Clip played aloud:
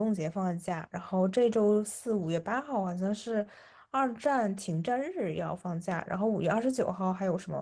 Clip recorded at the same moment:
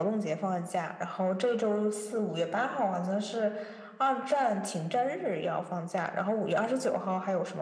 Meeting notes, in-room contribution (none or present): none